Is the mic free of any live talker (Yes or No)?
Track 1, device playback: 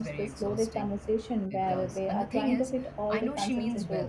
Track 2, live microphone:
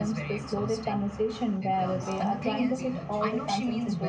No